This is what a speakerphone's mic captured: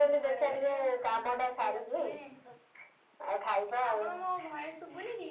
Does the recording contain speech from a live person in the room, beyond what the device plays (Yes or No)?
Yes